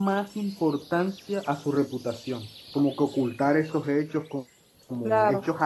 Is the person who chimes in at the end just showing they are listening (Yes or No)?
Yes